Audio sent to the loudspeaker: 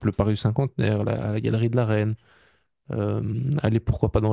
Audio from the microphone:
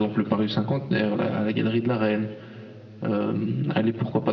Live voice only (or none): none